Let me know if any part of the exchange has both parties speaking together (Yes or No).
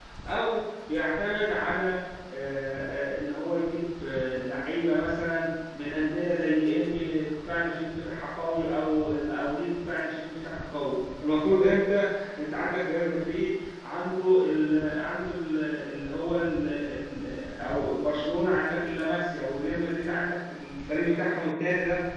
No